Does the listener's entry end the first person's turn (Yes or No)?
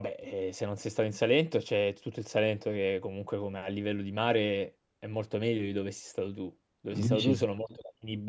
No